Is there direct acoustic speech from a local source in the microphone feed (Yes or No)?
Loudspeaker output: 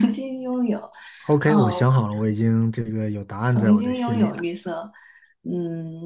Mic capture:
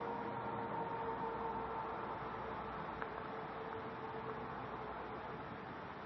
No